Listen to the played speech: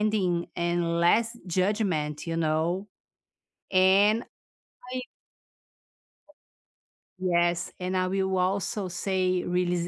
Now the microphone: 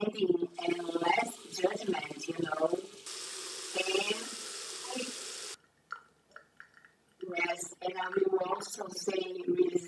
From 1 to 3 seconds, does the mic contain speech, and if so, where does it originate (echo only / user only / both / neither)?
echo only